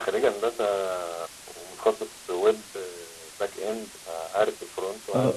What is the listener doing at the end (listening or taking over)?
taking over